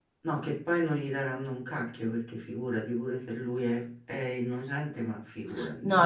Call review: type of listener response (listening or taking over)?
taking over